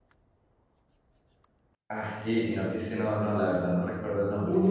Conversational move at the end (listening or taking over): listening